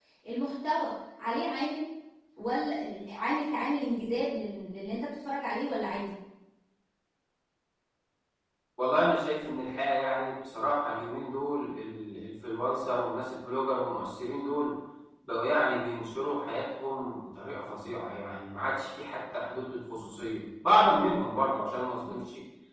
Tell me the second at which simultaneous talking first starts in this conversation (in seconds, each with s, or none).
none